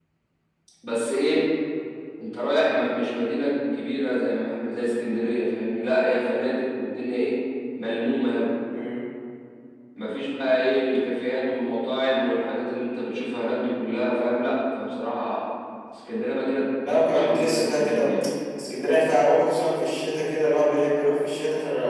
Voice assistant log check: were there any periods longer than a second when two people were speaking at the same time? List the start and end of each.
16.9-18.1

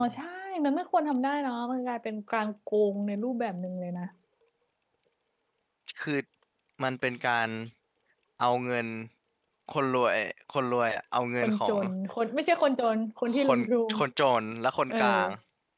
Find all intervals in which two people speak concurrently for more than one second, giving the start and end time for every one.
none

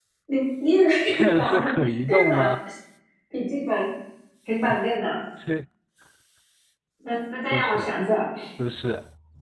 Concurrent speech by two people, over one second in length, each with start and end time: 1.1-2.5

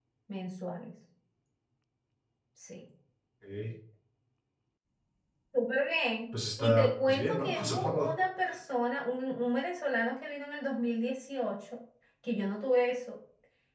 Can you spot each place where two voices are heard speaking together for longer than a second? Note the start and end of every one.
6.6-8.1

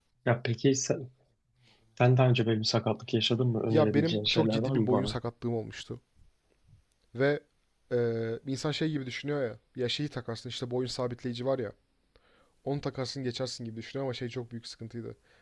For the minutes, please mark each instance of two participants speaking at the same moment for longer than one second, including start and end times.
3.7-5.1

